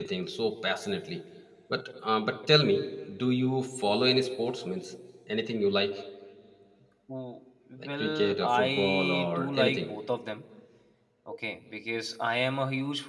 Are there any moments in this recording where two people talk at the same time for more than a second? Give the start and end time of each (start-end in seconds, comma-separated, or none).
8.0-9.9